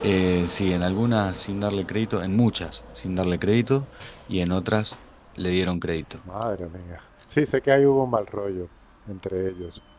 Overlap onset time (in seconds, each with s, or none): none